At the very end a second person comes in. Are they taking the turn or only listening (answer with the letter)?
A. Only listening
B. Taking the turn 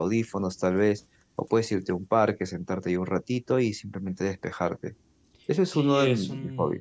B